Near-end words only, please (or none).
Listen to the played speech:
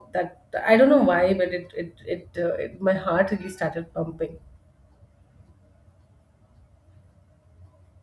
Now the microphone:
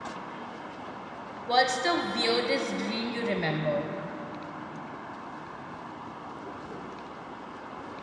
what's the weirdest dream you remember?